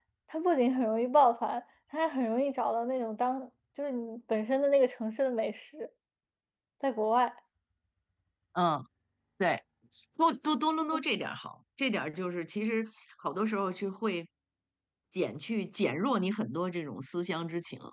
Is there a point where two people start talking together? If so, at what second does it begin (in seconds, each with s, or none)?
none